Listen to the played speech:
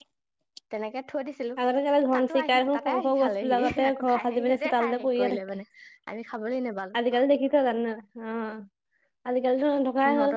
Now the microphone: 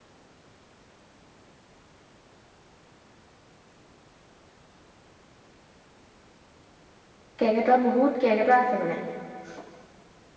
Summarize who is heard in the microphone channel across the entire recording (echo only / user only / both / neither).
user only